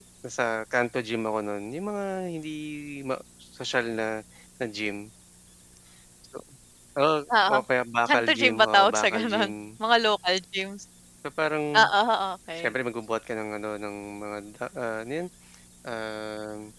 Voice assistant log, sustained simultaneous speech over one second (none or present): present